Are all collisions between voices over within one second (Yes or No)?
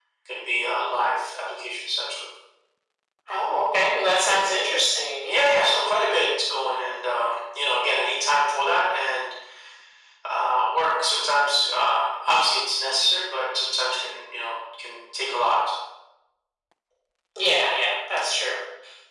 Yes